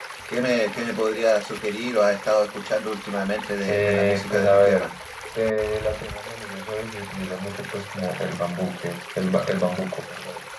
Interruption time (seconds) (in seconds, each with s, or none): 3.7 s